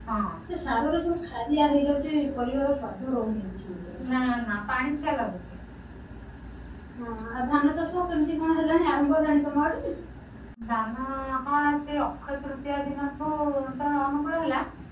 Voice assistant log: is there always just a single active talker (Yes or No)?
Yes